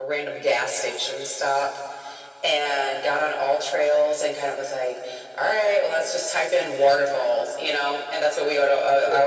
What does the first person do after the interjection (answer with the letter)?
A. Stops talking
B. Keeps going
B